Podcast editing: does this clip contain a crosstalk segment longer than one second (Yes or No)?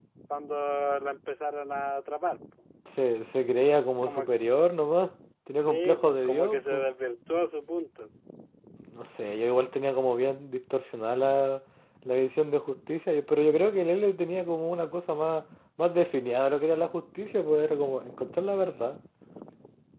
Yes